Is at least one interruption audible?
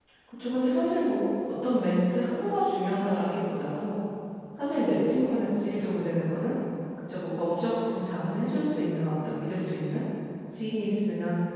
No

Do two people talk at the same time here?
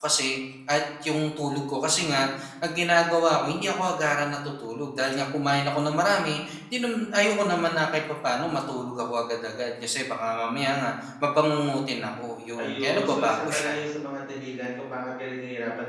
Yes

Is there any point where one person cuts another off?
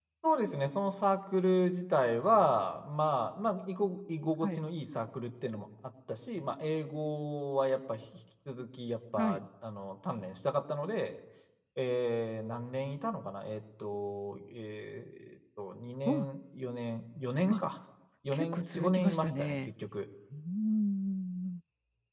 Yes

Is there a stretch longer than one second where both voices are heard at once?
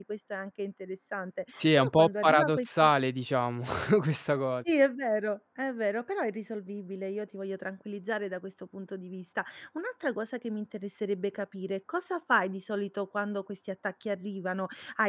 Yes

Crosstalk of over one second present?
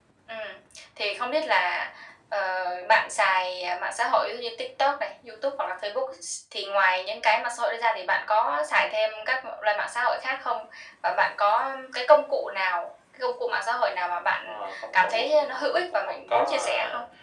Yes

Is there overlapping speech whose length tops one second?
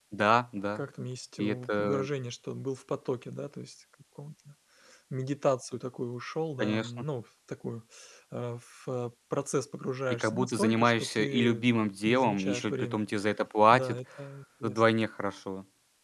Yes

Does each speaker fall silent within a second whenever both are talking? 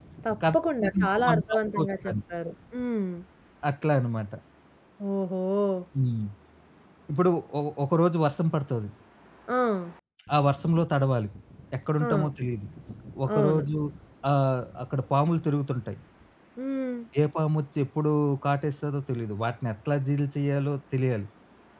No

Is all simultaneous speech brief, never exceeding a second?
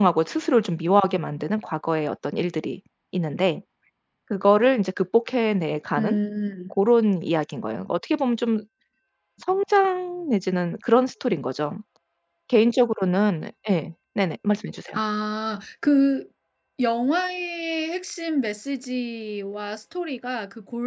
Yes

